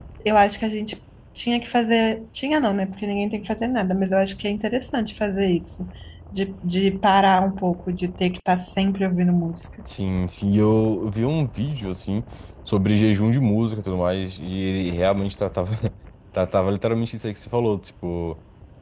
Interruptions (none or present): none